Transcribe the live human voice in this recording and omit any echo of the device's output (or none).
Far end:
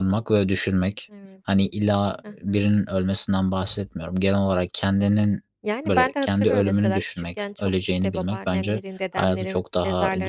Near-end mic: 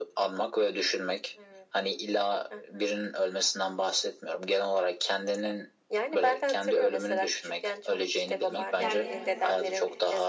gidip geldiğimiz için he